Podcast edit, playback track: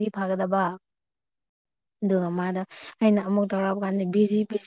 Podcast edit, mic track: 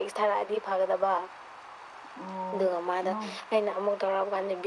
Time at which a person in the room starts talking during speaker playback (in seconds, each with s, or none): 2.1 s